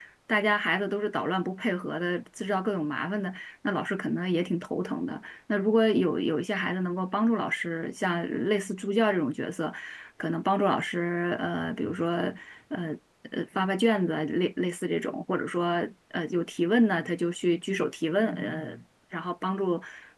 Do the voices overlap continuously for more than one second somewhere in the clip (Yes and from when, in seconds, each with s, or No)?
No